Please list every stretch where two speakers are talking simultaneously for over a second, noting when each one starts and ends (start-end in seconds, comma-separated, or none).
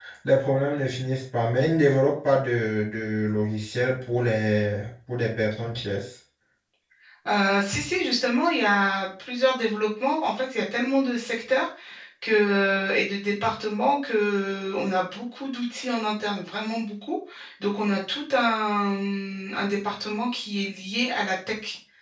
none